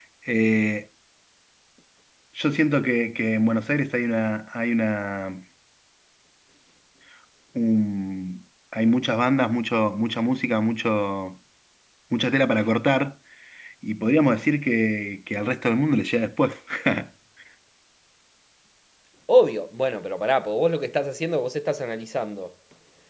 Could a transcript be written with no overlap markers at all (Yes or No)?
Yes